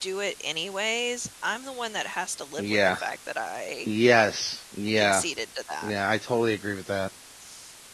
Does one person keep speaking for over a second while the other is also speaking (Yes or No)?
No